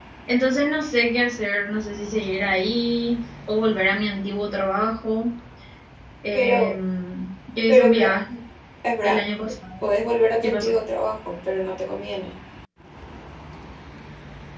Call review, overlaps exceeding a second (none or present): none